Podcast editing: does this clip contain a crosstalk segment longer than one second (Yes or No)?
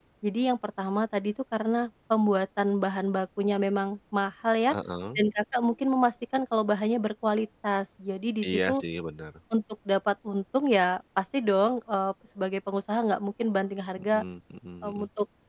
No